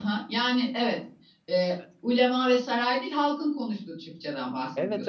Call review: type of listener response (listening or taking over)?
taking over